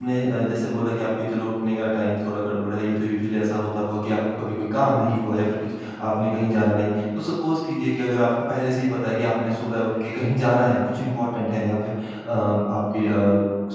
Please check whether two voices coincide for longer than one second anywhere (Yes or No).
No